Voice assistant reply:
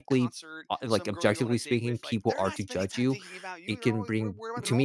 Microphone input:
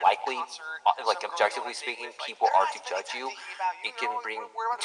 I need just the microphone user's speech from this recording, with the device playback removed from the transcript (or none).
none